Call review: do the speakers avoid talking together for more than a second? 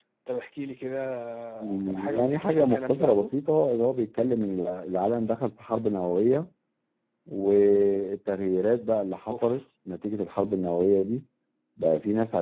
No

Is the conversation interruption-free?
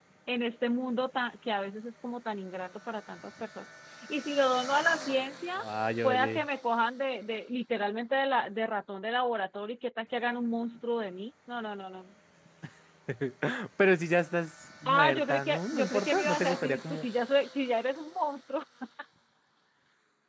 No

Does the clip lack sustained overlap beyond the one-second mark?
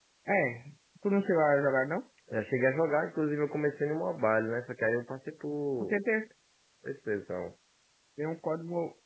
Yes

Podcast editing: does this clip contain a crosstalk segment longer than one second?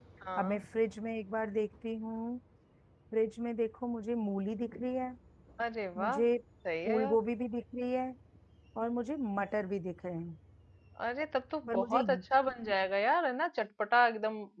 No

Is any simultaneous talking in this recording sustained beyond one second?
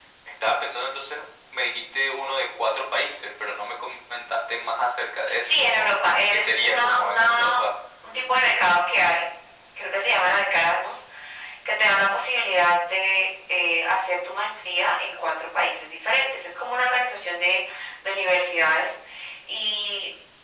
Yes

